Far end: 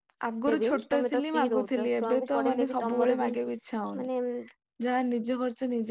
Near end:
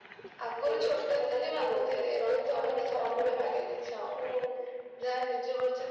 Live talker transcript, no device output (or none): none